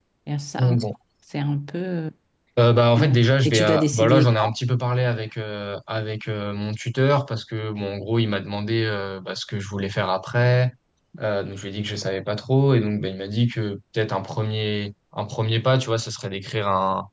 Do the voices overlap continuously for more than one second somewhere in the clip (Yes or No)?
Yes